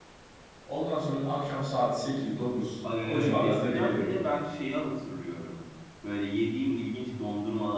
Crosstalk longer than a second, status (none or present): present